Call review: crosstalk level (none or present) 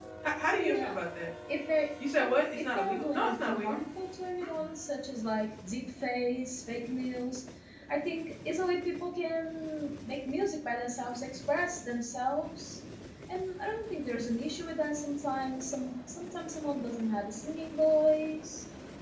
present